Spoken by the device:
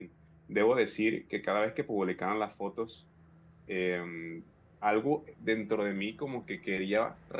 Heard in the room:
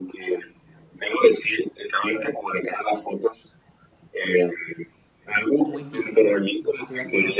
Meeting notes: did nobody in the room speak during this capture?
No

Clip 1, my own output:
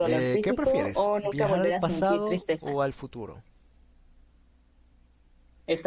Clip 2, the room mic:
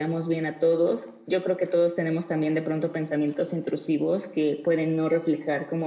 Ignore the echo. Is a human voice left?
Yes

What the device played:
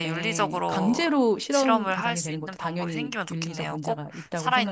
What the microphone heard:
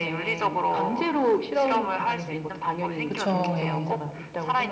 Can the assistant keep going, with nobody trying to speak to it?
No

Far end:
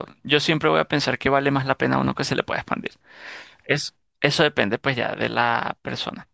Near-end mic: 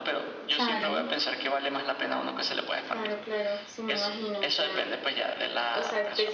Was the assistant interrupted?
Yes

